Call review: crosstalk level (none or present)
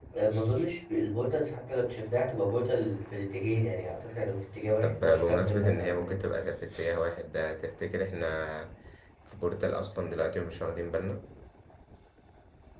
present